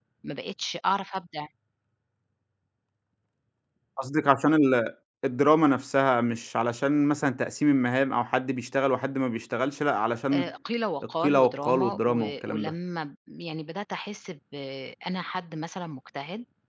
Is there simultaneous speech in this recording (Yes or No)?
Yes